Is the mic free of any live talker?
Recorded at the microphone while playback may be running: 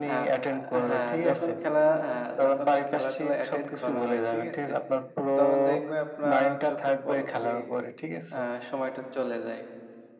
No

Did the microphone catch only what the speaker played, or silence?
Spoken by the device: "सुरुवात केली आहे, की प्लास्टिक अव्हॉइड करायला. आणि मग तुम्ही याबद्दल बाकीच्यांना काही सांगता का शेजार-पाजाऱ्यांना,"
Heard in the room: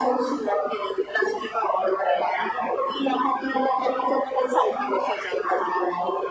Yes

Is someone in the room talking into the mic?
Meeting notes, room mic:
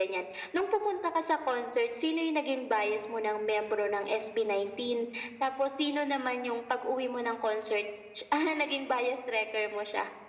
No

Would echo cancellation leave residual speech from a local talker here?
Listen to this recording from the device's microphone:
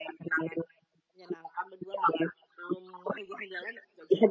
No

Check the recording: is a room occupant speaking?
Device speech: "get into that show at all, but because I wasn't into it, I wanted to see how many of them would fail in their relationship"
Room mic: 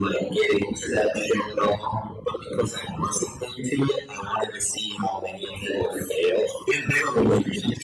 No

